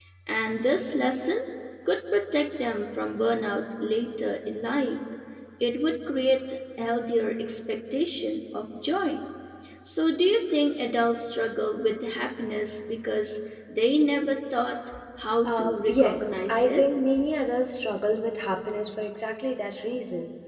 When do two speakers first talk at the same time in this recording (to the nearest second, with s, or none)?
15 s